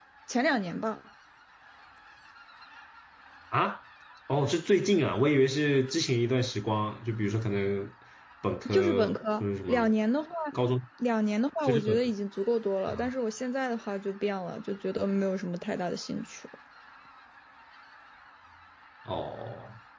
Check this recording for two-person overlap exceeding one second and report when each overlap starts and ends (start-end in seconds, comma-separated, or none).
8.7-9.9